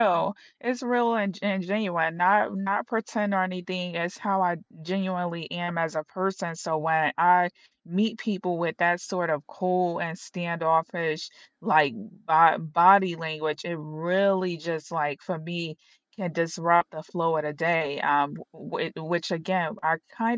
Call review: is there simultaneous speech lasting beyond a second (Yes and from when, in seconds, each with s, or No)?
No